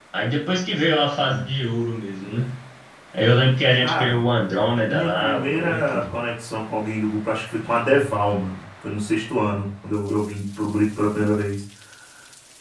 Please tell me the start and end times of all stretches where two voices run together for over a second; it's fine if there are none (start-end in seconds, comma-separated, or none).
4.8-6.0